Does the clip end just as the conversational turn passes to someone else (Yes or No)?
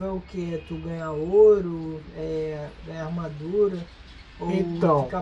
No